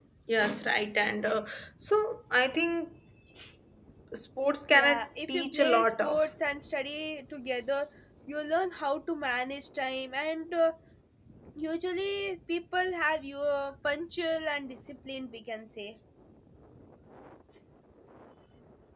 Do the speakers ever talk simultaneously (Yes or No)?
Yes